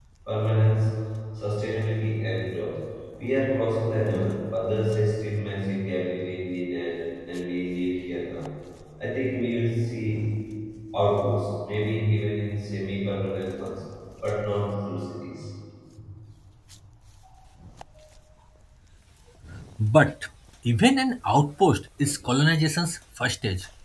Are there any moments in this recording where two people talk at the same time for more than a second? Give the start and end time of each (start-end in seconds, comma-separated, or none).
none